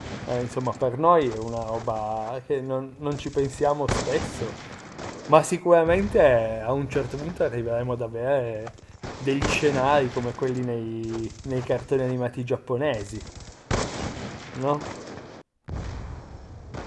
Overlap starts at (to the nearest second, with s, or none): none